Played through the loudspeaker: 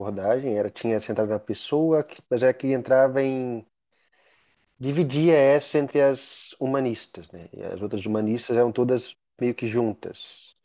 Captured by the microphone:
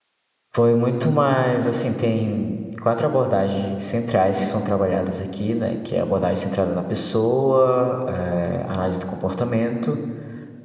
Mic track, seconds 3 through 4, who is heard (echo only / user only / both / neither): user only